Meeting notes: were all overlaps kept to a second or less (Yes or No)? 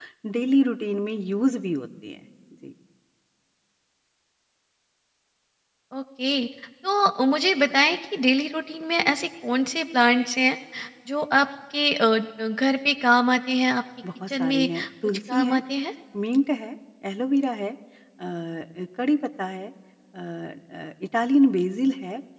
No